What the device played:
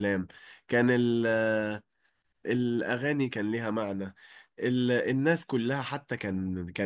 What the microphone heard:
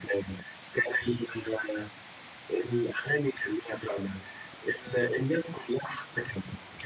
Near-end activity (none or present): none